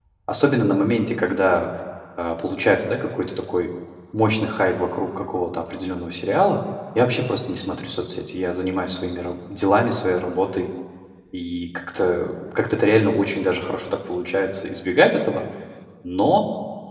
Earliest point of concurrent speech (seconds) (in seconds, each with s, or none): none